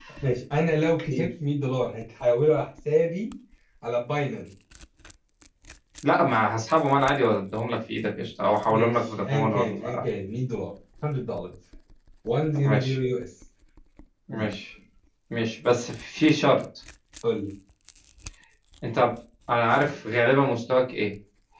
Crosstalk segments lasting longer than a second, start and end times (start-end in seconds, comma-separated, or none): 8.6-10.0